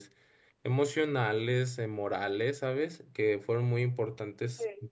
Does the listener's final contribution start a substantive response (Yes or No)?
No